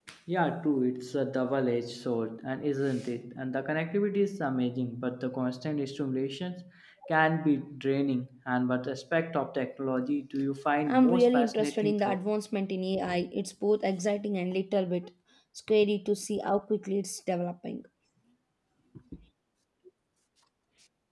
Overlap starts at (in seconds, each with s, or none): 10.9 s